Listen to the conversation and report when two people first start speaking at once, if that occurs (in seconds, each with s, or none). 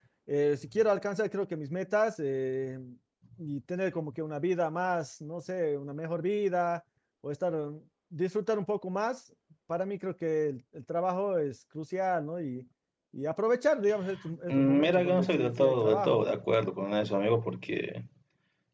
14.5 s